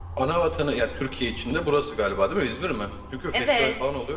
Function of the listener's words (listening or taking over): taking over